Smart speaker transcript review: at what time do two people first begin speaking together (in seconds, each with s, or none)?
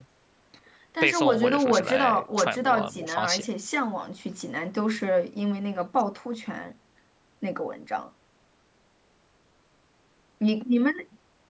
1.0 s